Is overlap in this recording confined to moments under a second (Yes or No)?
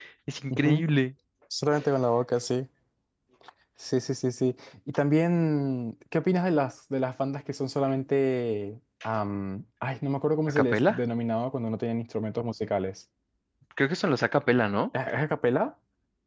Yes